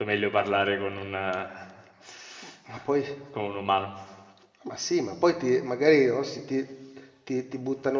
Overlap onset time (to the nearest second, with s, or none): none